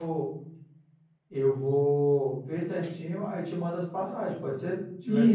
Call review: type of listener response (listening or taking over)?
taking over